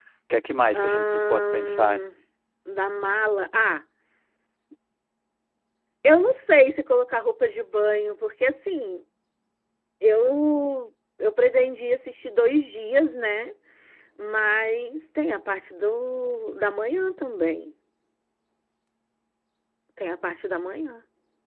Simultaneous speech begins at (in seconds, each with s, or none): 0.7 s